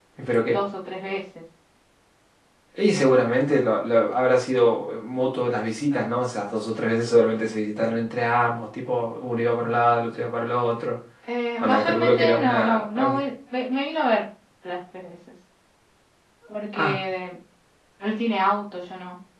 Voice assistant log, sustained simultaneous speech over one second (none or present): present